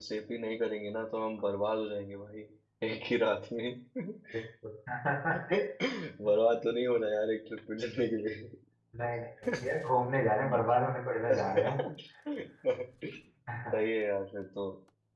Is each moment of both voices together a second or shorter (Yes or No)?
Yes